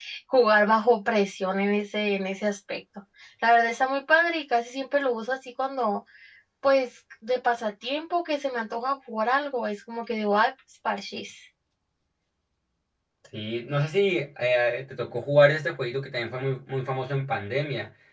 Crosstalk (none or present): none